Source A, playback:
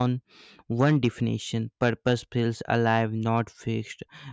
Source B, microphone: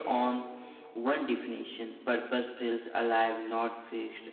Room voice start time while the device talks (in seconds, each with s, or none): none